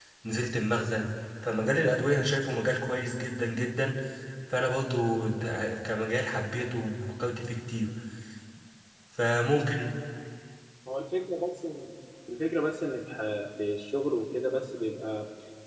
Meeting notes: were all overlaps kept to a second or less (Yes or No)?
Yes